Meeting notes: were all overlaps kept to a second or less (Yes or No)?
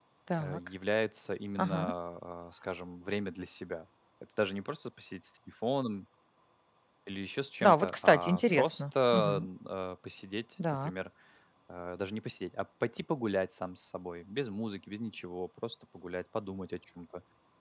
No